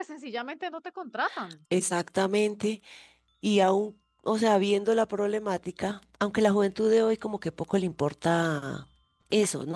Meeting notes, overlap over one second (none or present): none